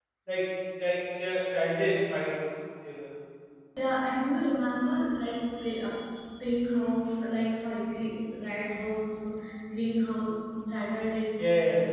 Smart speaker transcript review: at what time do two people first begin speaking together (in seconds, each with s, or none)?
none